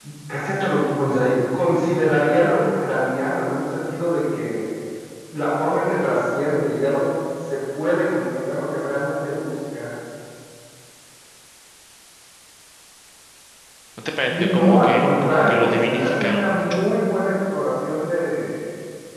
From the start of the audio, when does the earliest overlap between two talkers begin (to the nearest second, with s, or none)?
14 s